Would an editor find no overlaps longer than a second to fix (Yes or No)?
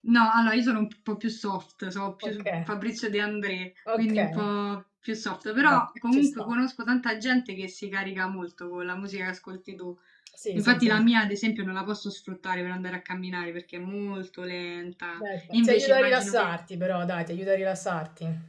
No